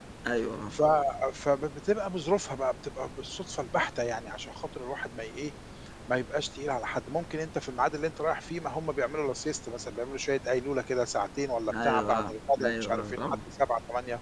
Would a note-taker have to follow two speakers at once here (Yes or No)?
Yes